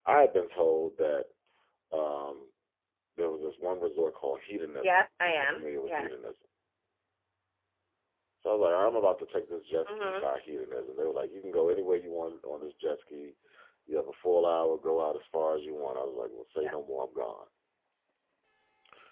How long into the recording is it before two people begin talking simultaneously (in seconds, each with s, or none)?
4.8 s